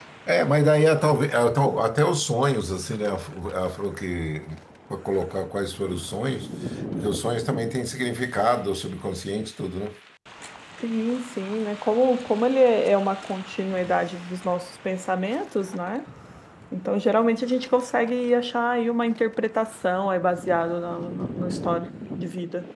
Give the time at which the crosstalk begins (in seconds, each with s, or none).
none